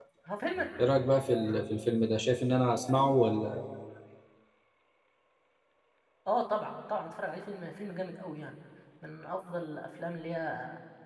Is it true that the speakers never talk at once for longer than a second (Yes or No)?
Yes